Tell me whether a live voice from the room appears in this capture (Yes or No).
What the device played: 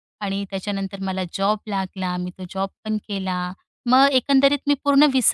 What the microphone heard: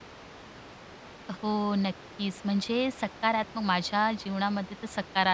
Yes